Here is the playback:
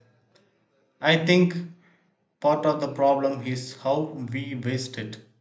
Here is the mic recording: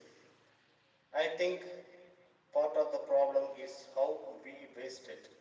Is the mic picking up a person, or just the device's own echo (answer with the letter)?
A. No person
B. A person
A